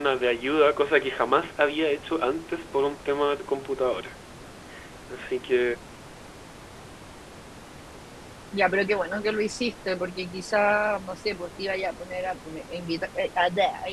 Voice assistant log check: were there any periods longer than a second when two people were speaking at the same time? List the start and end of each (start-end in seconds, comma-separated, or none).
none